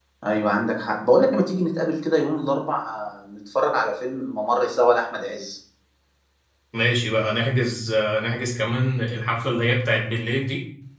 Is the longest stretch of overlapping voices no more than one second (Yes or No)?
Yes